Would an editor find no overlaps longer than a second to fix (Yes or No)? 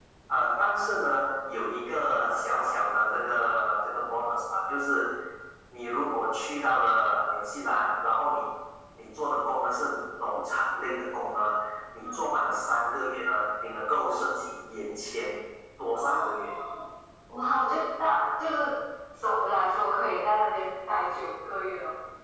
Yes